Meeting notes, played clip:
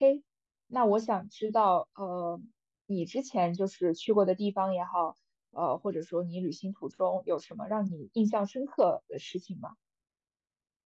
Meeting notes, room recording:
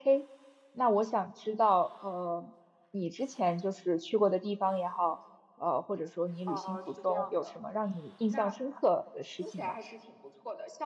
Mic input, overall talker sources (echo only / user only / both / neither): both